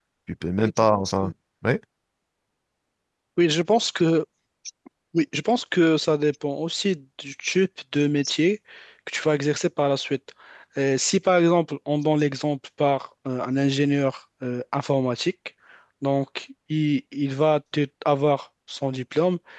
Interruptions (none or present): none